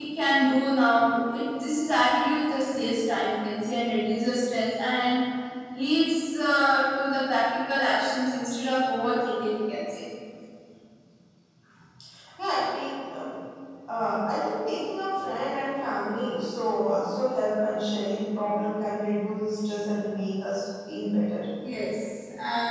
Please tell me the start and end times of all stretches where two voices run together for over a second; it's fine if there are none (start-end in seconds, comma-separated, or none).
none